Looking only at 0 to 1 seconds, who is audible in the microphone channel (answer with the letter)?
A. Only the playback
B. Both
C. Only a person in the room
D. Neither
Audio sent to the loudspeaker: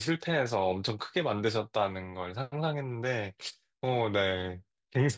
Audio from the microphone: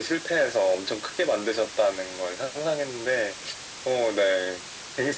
A